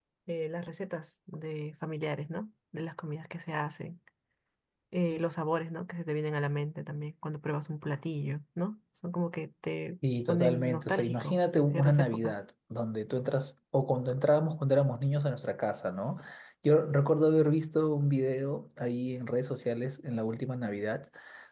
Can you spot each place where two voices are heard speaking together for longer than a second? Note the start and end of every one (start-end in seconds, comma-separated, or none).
10.3-12.4